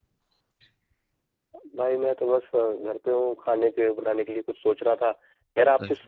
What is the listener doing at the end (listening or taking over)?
listening